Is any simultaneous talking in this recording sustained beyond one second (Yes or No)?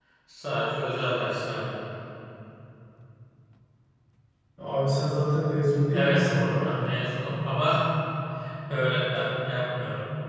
No